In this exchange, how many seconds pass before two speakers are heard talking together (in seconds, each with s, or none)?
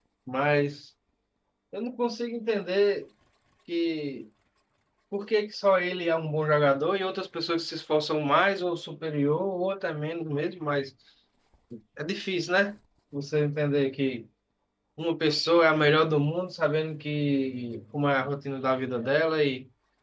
none